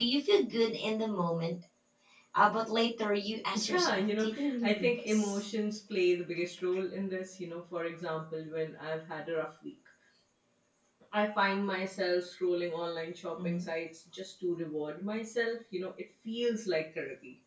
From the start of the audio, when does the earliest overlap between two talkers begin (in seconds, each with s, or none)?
3.5 s